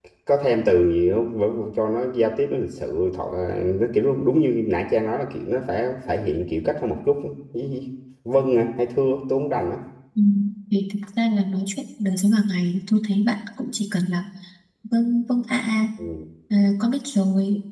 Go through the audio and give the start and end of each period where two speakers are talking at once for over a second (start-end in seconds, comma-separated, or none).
none